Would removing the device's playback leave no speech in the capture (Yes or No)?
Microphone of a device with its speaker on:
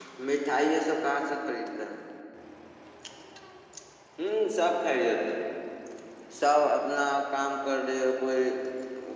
Yes